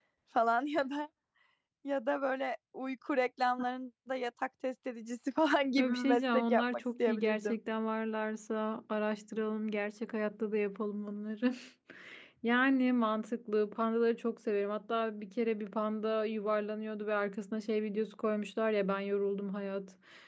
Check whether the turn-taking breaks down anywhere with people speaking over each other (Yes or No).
Yes